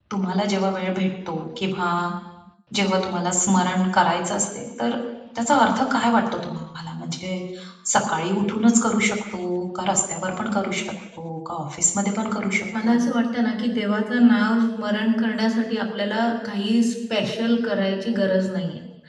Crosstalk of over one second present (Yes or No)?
No